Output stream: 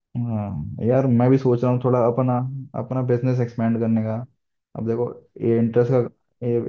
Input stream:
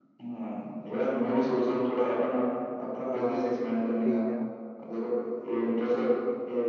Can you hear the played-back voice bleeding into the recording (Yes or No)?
Yes